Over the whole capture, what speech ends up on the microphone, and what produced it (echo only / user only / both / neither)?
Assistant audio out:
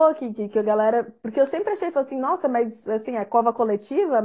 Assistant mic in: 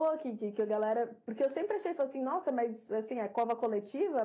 echo only